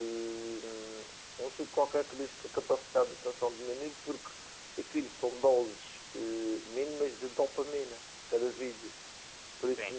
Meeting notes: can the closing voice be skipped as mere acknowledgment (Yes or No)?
Yes